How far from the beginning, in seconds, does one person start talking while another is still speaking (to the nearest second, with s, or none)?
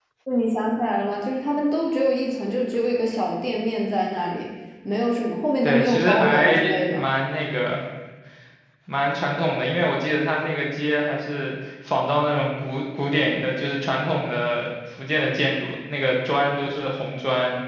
6 s